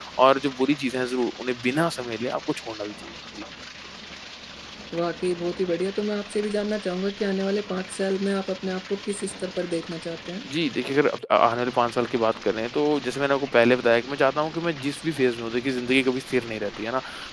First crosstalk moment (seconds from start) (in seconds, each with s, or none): none